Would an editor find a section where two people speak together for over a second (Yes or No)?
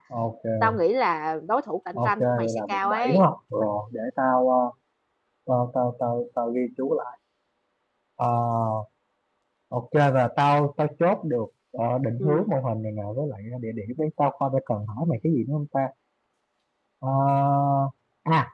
Yes